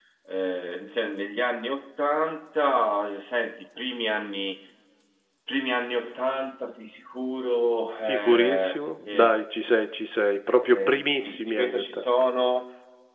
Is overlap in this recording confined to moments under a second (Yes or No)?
No